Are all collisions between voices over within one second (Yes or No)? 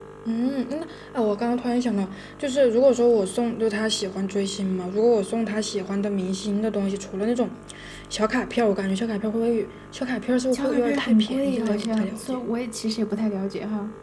No